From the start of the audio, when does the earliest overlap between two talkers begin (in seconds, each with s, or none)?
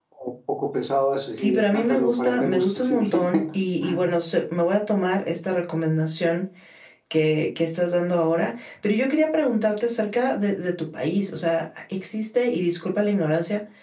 1.4 s